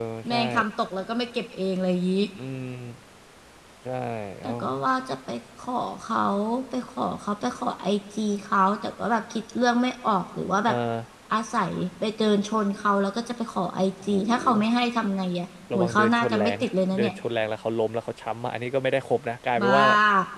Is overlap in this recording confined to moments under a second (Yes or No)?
No